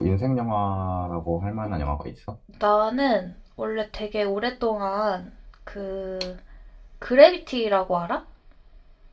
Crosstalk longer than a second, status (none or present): none